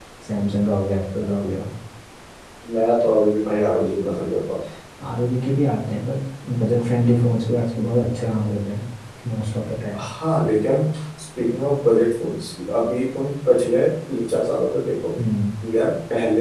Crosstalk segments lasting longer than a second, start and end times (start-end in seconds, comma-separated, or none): none